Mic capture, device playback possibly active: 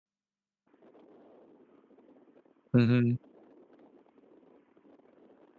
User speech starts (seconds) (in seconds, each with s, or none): 2.7 s